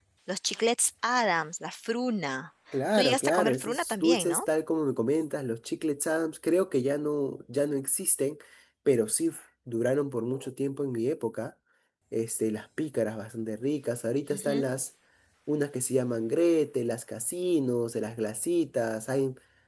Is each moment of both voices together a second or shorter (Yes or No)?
No